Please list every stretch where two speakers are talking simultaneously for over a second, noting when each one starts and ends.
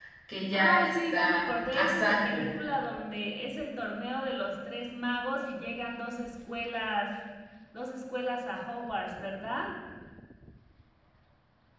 0.5-2.5

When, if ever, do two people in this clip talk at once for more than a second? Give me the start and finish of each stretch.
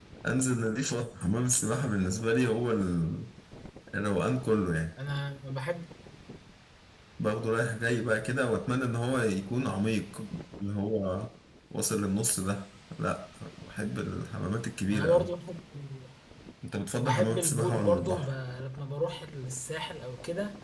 17.0-18.3

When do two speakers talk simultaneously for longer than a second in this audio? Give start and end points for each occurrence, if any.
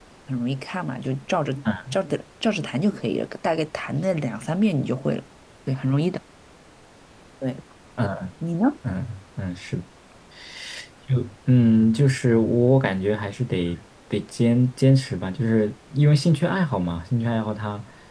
none

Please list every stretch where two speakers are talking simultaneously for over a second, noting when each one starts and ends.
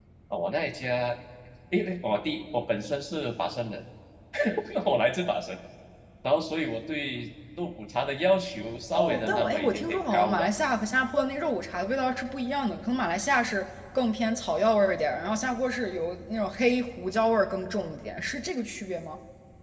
8.9-10.4

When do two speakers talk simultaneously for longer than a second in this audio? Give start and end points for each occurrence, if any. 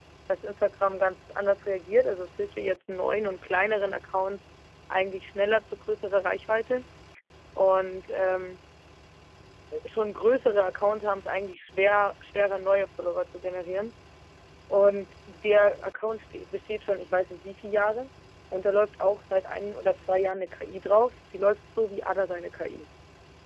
none

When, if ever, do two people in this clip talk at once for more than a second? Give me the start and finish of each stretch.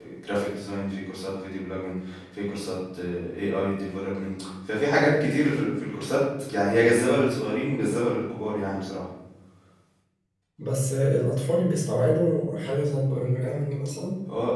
none

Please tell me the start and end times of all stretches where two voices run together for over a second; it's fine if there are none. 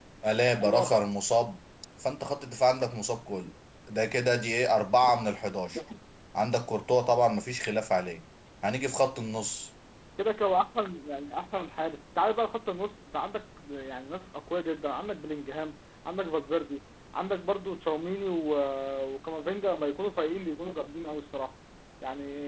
none

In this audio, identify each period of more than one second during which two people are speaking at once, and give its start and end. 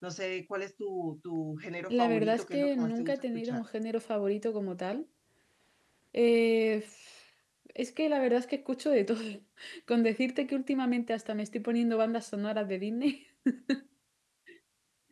1.9-3.6

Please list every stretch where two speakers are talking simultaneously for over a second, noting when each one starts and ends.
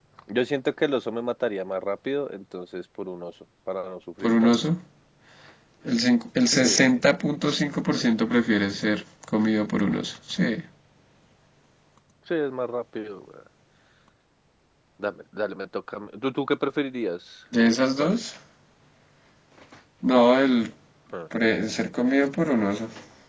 none

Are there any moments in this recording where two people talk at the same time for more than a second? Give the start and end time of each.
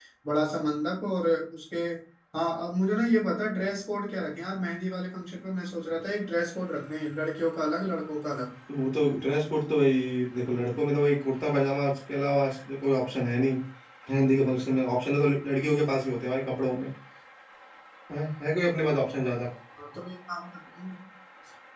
none

